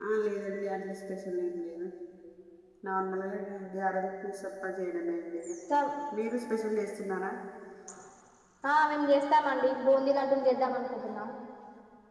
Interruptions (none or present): none